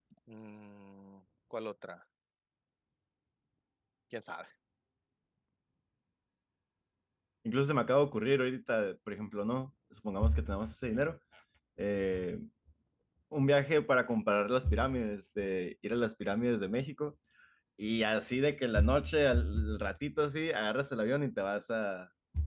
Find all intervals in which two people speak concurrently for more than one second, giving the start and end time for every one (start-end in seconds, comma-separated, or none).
none